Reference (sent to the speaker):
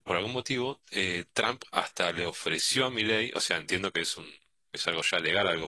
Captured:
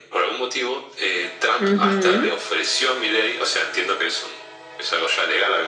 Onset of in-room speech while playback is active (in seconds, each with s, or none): 1.6 s